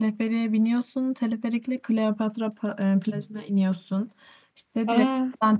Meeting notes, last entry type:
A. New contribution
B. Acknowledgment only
B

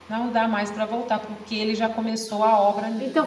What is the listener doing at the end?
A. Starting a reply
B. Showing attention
A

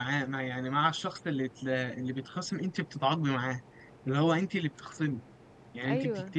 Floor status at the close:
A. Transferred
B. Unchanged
B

